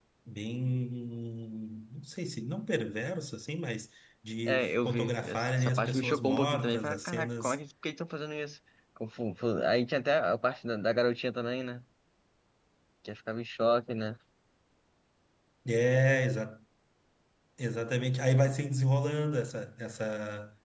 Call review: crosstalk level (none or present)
present